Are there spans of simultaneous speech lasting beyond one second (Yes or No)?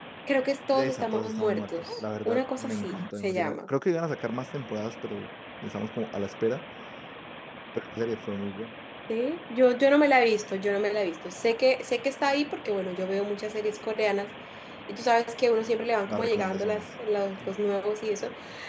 Yes